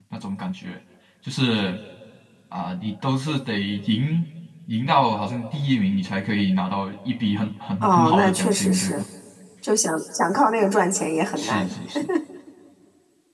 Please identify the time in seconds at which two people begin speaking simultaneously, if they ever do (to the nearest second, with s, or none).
8 s